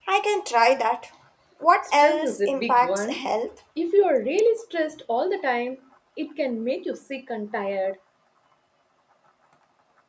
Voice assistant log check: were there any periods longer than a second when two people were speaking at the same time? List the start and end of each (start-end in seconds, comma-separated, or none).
2.0-3.2